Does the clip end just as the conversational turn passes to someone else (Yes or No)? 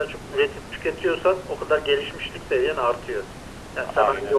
No